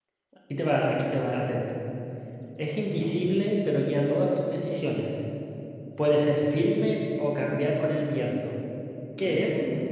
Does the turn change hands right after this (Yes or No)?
Yes